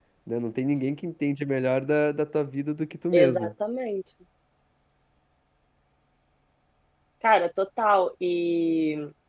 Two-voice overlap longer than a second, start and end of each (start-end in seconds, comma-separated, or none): none